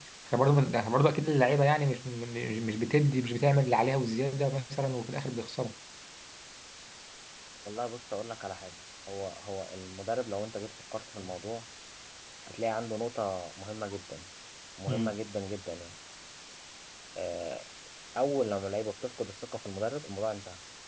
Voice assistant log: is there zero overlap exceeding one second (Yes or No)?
Yes